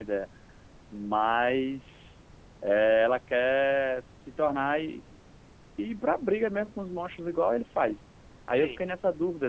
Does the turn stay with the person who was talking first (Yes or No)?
Yes